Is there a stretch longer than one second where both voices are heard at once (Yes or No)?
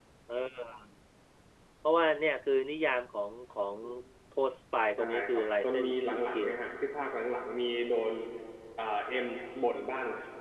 Yes